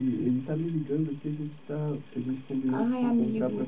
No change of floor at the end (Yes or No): Yes